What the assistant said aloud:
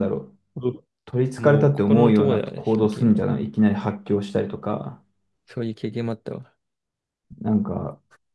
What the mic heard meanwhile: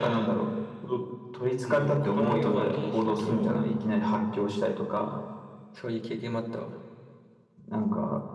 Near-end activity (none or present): present